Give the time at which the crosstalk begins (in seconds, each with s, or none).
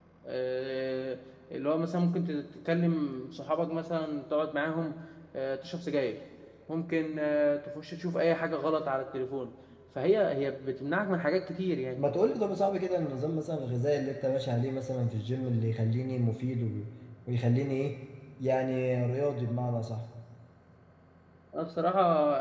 none